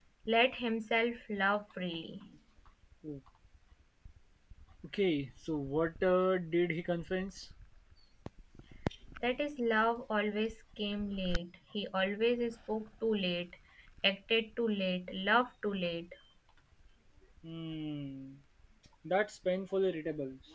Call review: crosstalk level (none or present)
none